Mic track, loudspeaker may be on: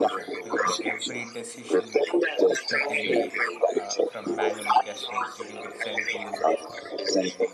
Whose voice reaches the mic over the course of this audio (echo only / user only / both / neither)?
both